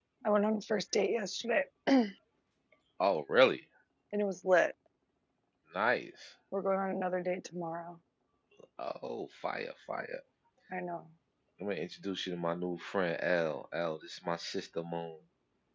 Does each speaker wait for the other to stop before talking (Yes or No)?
Yes